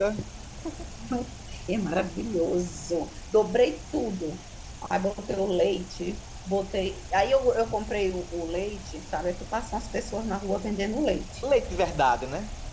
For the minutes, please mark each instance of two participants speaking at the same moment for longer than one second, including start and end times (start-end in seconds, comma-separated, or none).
none